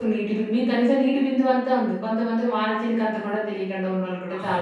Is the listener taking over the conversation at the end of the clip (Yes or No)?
Yes